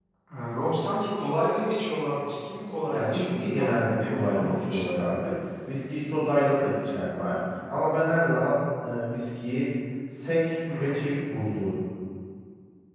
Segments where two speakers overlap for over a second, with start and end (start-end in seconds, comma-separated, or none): 2.9-5.1